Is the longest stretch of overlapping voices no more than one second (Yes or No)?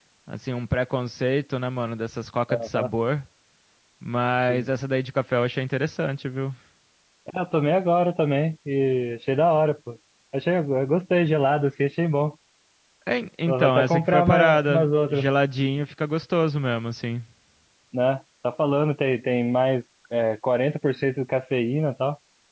No